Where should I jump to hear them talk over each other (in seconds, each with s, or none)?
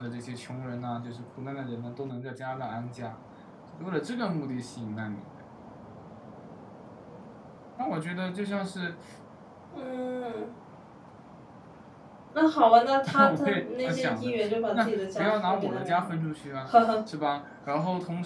13.1 s